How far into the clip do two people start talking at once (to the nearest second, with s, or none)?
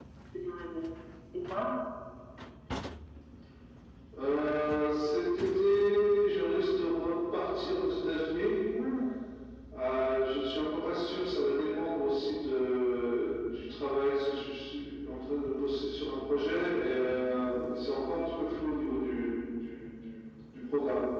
none